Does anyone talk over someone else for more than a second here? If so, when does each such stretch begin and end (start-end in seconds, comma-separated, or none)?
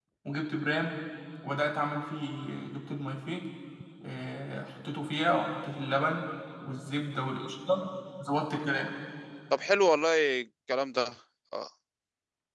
none